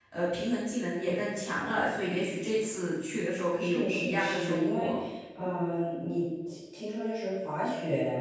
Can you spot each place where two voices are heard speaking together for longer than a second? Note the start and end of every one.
3.6-4.9

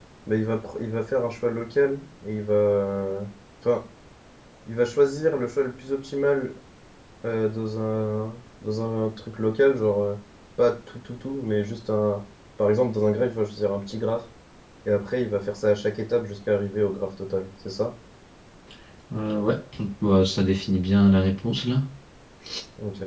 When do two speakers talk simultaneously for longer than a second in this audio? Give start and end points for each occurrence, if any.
none

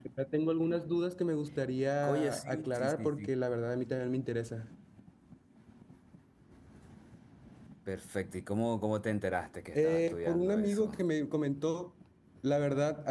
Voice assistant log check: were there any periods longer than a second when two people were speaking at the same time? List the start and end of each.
2.0-3.3, 9.8-11.0

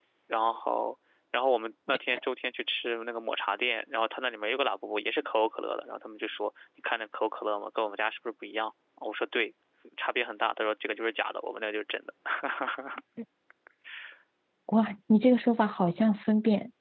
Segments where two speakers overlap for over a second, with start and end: none

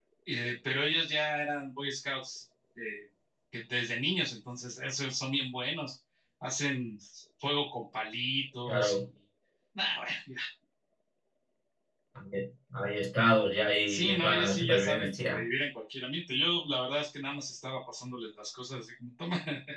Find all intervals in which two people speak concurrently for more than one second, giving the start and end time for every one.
13.9-15.4

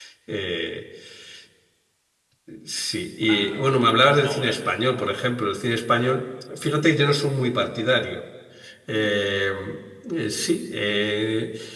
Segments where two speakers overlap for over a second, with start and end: 3.2-5.3

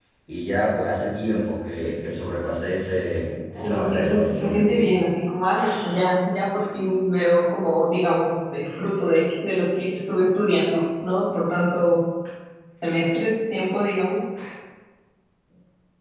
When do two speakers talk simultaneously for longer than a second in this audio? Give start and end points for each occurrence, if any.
3.6-4.8

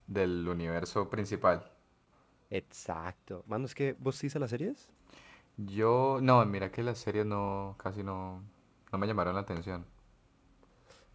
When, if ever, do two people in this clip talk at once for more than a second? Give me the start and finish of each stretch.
none

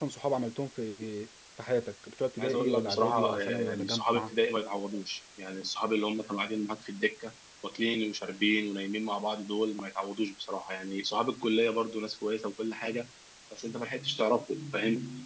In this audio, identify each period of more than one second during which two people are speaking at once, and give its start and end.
2.4-4.3

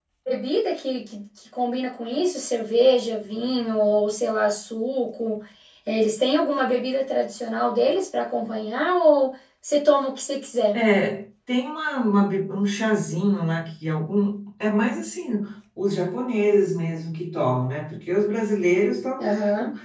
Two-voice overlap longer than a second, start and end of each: none

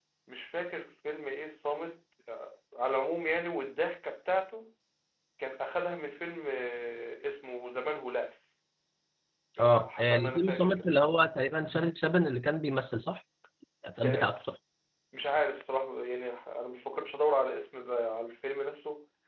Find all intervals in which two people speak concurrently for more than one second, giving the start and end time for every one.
9.6-10.9

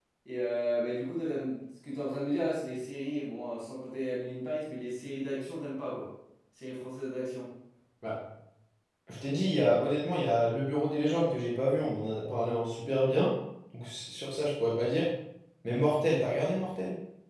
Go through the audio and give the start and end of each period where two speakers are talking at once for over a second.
none

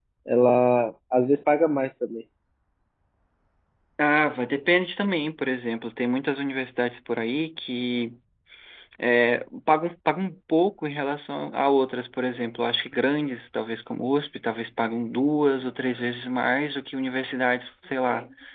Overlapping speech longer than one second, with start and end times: none

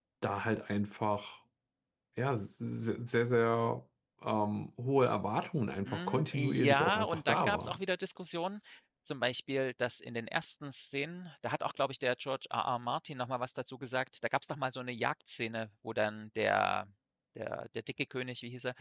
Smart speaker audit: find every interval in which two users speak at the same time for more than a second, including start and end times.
5.8-7.8

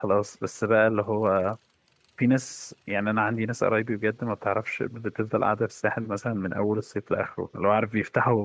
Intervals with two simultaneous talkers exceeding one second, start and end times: none

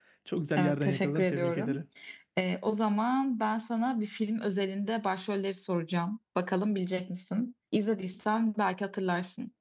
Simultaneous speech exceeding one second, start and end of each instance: 0.6-1.8

